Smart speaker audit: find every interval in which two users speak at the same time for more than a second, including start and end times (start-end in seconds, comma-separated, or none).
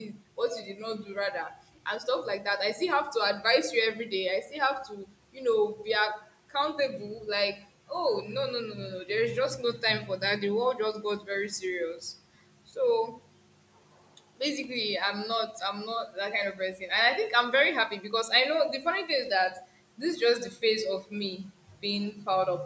none